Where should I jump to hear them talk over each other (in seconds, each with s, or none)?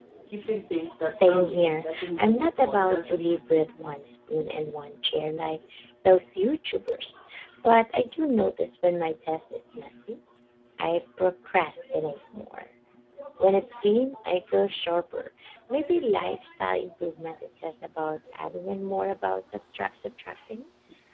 1.1 s